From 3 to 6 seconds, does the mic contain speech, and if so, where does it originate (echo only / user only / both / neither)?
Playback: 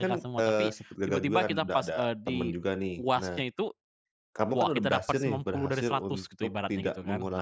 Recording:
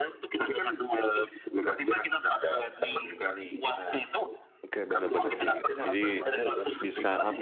both